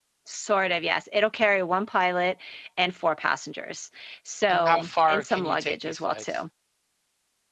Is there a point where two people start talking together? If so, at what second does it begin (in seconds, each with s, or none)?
4.5 s